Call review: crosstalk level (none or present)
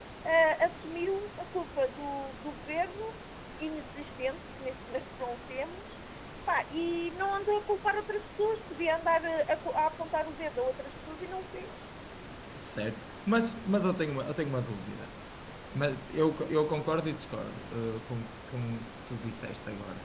none